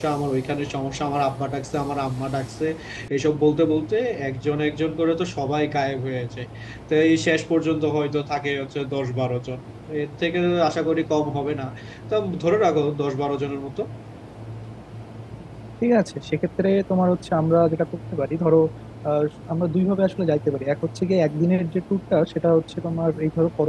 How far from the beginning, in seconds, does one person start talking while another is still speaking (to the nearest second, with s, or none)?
none